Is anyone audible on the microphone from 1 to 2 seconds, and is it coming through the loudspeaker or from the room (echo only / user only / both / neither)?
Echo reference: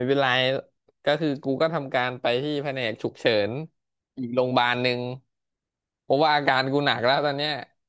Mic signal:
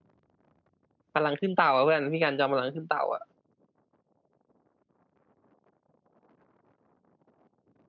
user only